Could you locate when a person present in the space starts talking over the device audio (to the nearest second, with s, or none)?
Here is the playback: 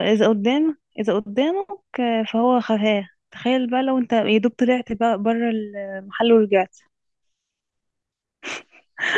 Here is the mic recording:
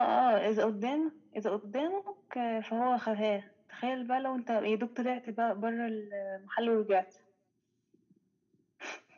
none